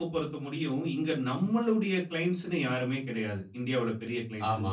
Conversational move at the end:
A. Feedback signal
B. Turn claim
A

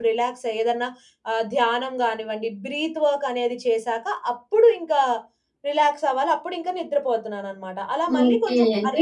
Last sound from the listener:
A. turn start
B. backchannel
A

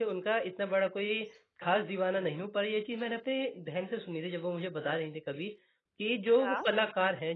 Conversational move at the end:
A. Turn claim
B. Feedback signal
B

